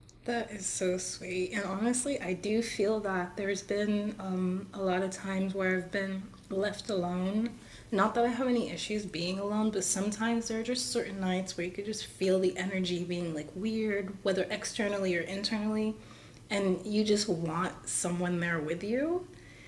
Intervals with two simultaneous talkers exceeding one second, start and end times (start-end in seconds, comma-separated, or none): none